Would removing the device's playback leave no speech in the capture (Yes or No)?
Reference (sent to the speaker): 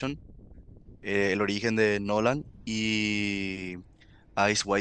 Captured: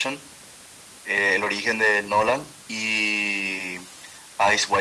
Yes